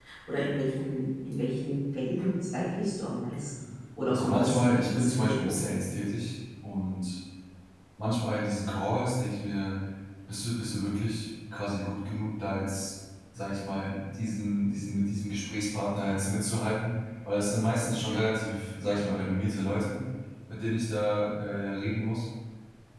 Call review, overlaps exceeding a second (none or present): present